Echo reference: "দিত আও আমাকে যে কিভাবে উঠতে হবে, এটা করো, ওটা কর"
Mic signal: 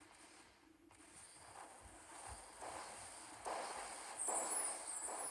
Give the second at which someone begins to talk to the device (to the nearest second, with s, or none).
none